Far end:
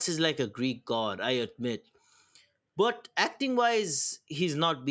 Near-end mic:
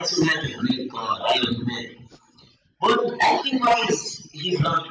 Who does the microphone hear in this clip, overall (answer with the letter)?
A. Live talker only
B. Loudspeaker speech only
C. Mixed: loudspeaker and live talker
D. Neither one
B